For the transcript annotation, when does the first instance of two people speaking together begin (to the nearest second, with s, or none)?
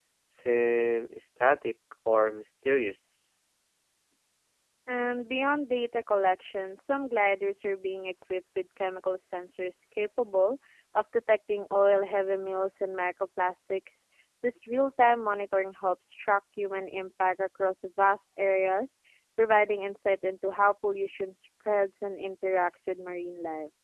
none